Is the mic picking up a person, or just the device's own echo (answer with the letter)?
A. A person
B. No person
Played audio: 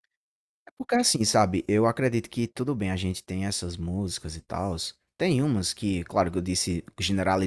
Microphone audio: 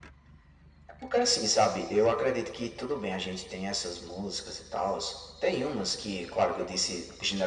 B